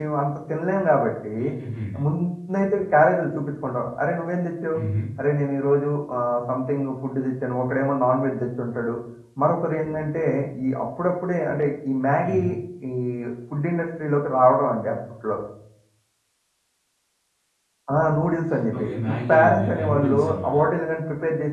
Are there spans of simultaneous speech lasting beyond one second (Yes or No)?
Yes